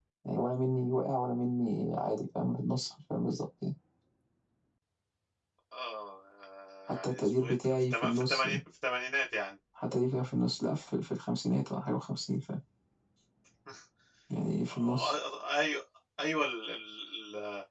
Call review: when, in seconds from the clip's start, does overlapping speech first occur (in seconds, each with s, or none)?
6.9 s